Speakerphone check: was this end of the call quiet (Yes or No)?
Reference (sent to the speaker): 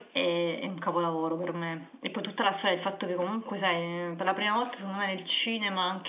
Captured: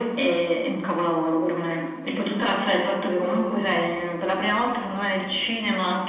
Yes